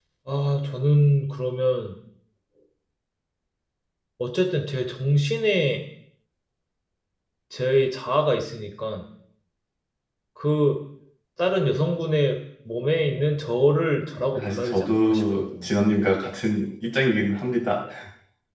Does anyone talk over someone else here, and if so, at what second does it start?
14.3 s

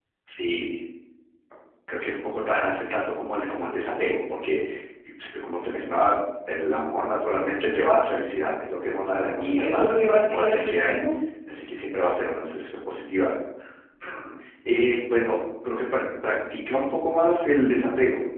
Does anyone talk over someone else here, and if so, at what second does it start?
9.4 s

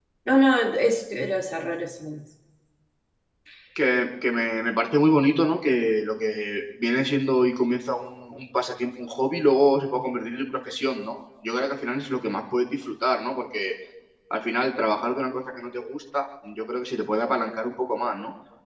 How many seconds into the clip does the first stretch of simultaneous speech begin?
none

